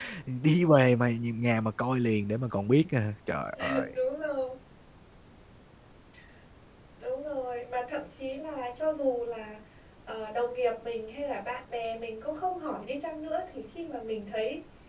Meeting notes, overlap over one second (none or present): none